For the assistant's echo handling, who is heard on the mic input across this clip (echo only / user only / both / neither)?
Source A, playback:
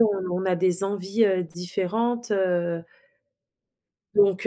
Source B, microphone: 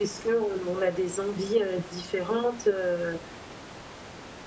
echo only